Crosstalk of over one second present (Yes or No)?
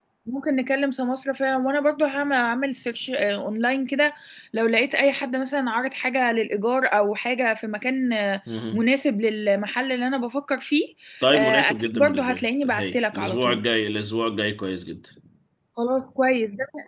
Yes